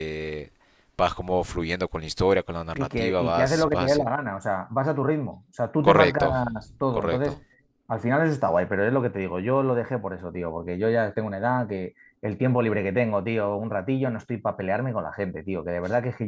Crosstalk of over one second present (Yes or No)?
Yes